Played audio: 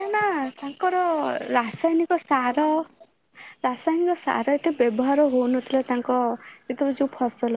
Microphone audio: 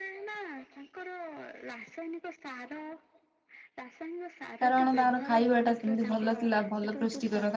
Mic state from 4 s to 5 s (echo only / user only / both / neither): both